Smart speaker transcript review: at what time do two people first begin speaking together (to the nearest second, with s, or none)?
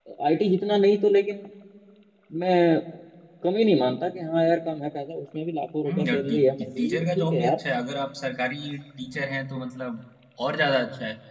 6 s